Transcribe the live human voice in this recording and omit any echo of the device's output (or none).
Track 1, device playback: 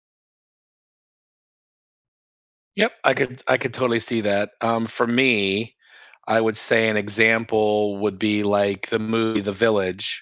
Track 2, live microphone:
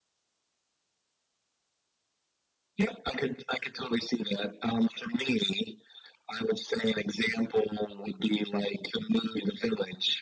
none